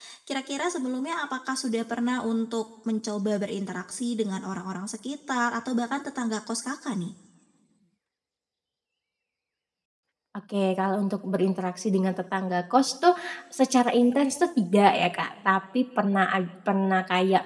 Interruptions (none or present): none